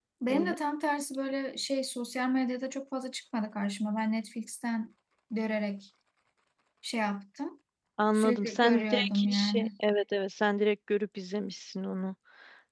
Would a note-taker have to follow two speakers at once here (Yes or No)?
Yes